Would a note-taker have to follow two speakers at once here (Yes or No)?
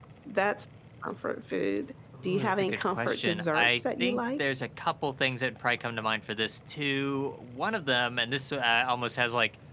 Yes